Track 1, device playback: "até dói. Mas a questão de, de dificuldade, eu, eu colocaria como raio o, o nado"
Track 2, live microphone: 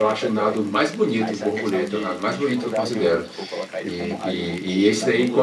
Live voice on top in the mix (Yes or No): Yes